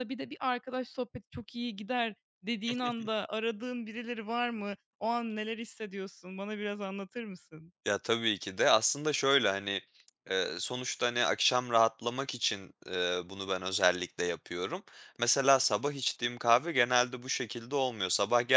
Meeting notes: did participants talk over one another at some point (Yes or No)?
No